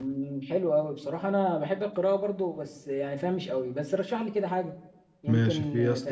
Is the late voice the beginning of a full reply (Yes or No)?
Yes